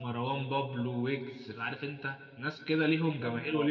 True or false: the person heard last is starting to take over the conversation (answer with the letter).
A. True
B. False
B